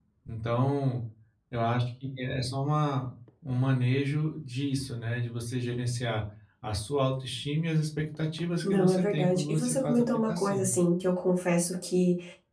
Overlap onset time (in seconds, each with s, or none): 8.6 s